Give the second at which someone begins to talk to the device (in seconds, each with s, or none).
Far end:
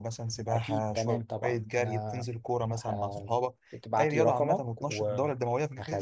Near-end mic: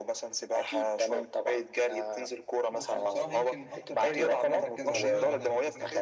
2.7 s